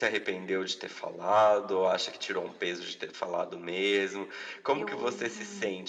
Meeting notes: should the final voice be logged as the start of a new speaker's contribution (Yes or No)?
No